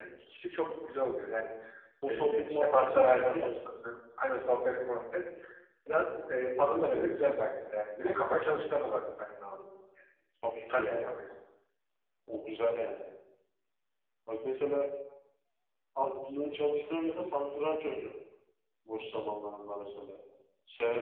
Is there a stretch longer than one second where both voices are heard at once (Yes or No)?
Yes